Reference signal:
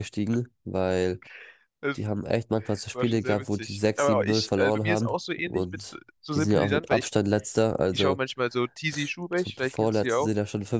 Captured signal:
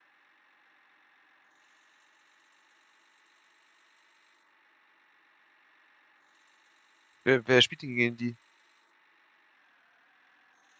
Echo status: none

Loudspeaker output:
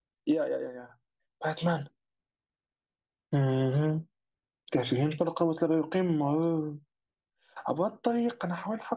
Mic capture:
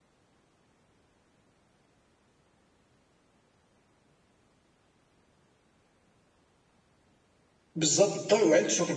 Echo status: none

